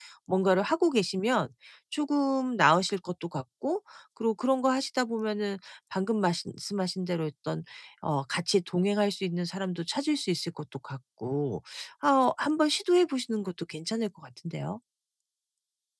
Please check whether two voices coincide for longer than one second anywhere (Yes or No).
No